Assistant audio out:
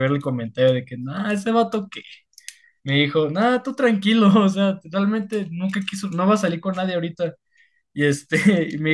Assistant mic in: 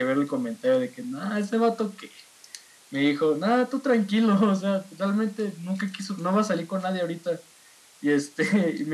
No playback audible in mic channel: No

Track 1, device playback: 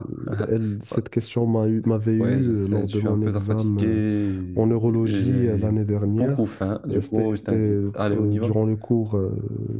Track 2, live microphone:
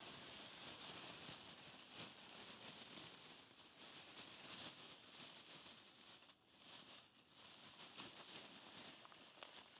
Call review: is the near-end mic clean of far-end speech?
Yes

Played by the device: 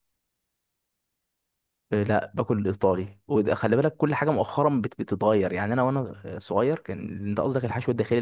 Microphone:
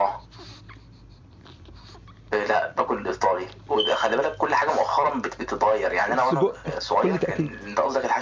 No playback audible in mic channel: No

